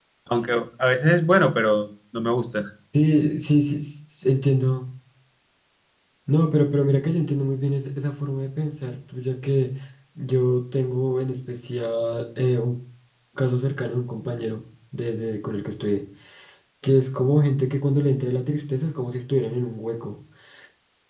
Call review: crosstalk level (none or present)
none